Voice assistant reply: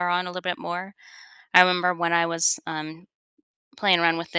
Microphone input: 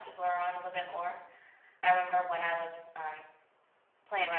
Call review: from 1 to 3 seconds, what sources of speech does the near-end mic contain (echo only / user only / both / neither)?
echo only